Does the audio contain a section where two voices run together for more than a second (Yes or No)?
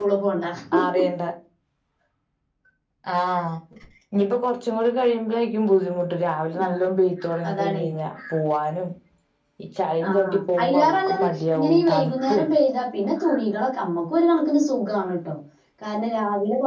Yes